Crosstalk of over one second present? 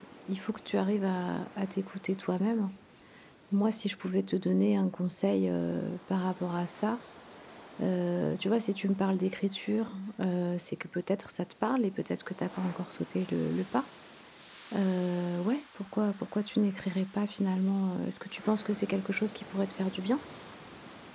No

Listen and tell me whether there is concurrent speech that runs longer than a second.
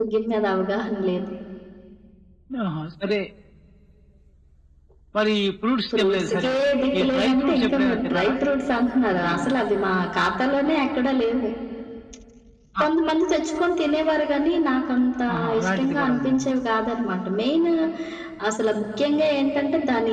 Yes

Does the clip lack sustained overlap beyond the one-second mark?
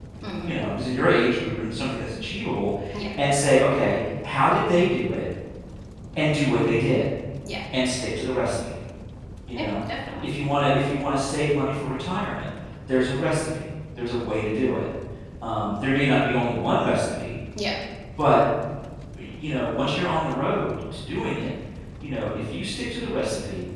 Yes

